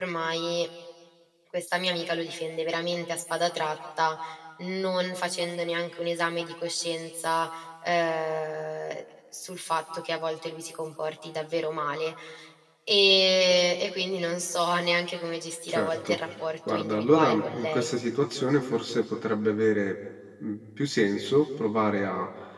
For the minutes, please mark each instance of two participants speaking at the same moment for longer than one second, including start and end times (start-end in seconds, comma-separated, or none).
16.7-18.0